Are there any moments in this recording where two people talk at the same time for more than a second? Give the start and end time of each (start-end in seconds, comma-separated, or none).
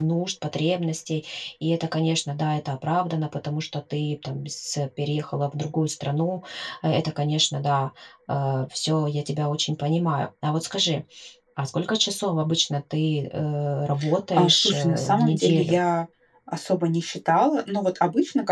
14.3-15.8